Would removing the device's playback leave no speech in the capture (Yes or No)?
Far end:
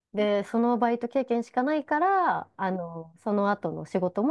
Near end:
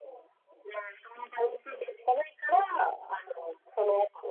No